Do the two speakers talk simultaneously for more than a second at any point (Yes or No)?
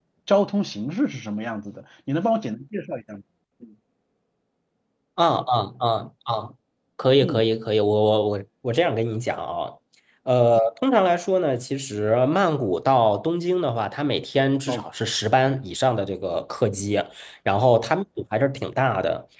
No